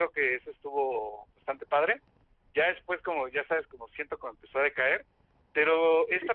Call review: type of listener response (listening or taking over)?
listening